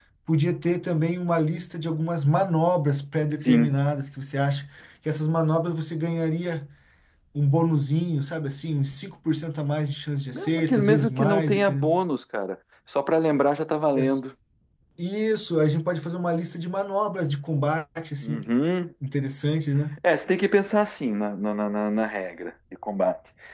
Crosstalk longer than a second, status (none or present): present